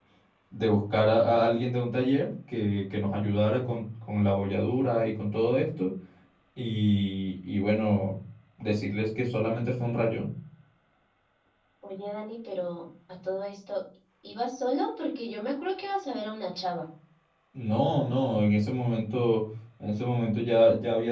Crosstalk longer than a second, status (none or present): none